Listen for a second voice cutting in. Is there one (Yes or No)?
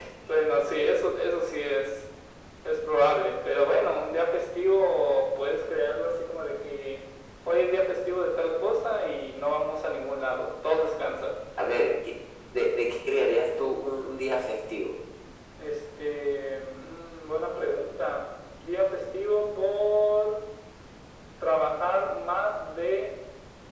No